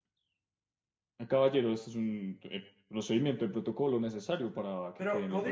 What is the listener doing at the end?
taking over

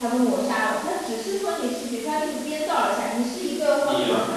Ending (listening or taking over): listening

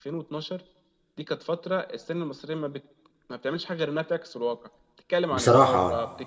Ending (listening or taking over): listening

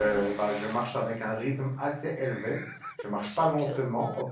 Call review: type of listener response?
listening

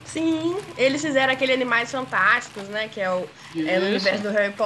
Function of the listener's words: listening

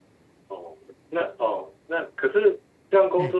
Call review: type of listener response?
listening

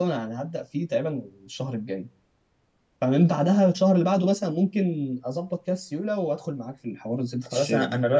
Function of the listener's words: taking over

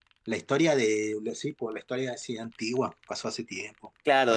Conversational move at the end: taking over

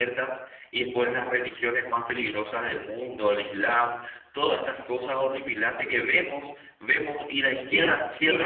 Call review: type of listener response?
taking over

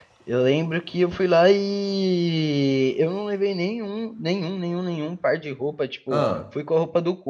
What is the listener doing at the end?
listening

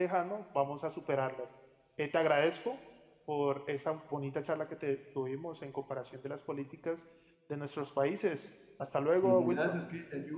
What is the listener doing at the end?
taking over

